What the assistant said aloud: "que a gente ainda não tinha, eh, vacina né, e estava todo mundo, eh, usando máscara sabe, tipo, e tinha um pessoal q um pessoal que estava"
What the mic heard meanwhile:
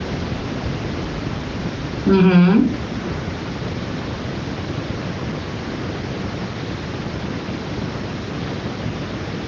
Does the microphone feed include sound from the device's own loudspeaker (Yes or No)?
No